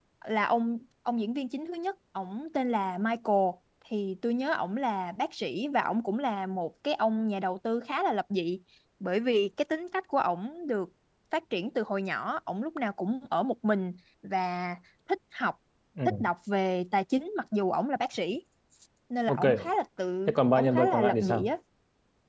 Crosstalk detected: Yes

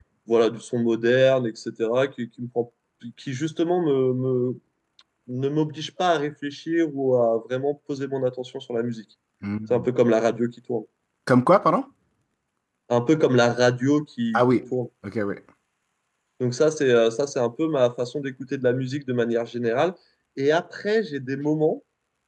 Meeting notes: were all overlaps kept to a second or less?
Yes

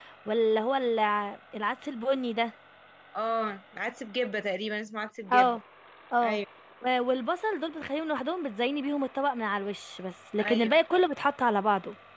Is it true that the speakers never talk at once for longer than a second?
Yes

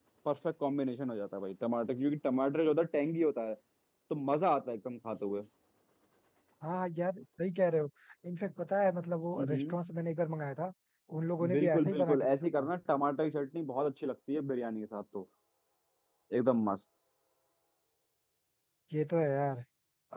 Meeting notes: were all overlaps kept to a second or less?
No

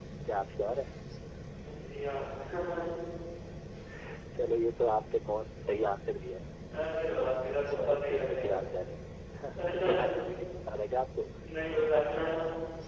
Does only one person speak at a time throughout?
No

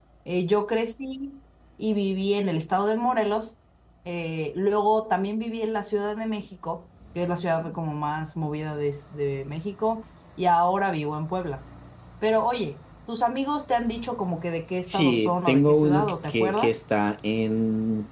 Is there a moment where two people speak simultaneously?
Yes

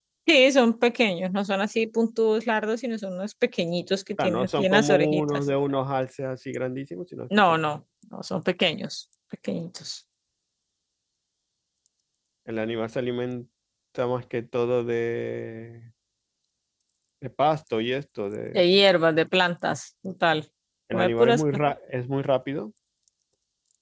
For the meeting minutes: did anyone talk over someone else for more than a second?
Yes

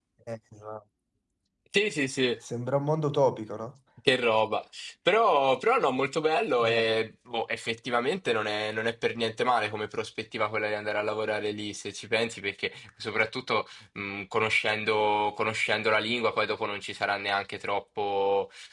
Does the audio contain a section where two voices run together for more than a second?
No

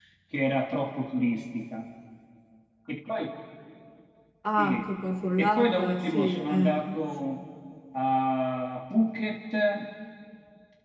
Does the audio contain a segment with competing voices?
Yes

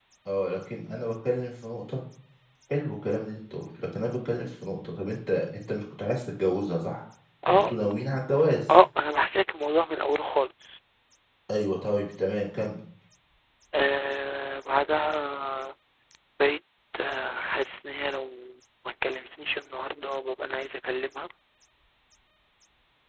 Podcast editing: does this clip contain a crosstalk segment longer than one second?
No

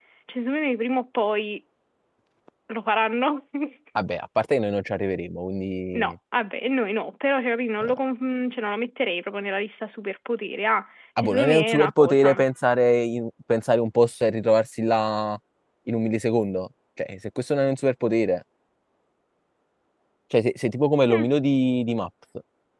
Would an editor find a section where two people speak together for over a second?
Yes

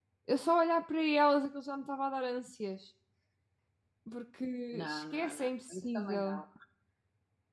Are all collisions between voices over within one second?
No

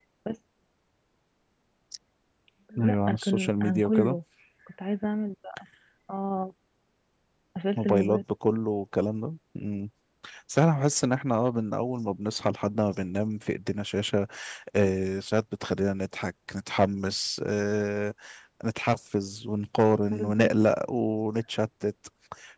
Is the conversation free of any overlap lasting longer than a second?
No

